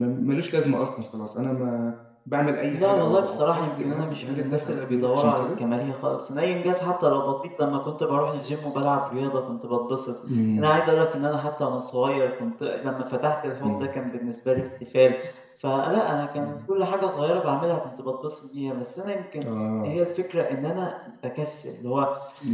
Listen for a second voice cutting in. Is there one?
Yes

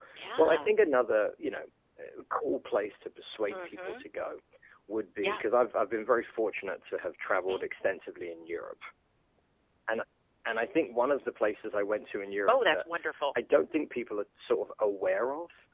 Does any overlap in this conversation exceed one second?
No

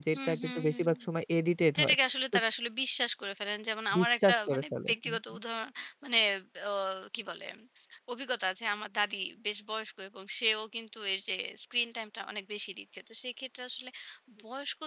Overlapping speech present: Yes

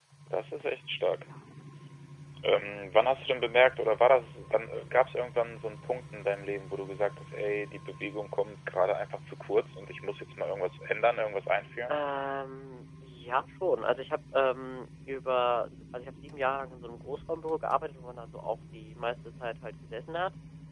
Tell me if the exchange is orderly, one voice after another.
Yes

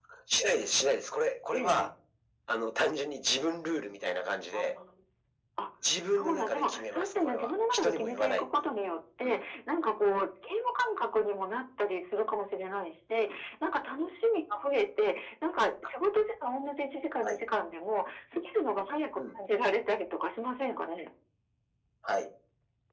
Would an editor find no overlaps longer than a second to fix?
No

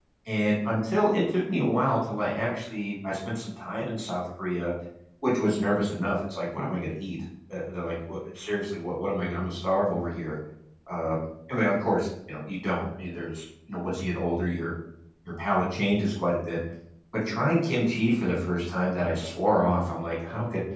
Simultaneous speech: No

